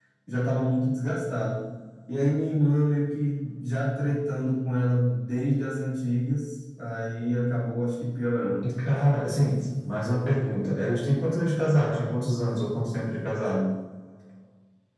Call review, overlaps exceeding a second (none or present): none